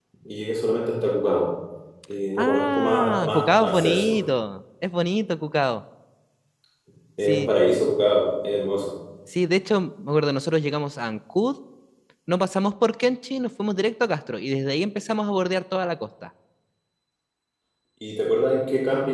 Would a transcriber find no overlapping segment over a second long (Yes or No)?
No